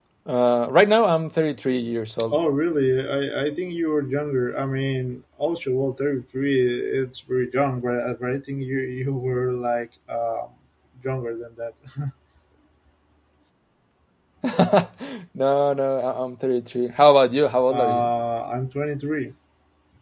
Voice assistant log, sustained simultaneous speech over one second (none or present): none